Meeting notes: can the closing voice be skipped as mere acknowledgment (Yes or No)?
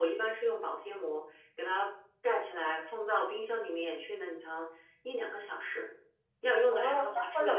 No